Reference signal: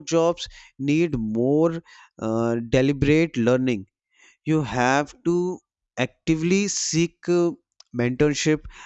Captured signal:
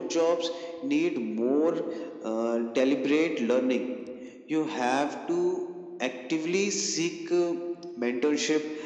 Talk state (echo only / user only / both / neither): echo only